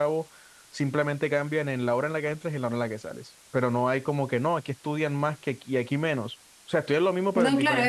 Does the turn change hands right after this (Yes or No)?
Yes